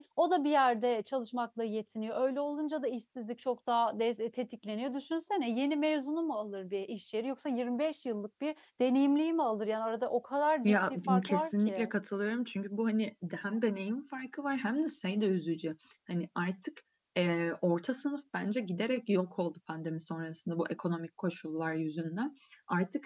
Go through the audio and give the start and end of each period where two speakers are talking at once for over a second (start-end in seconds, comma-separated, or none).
10.6-11.9